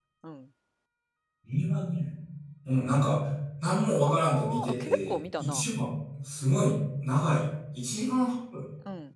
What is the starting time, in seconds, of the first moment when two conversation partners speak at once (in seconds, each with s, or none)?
4.1 s